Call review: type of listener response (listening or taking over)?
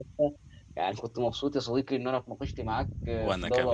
listening